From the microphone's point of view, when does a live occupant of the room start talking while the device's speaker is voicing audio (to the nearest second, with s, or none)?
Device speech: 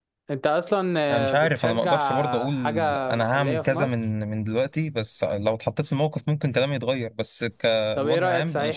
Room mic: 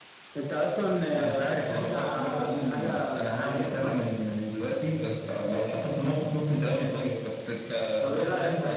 none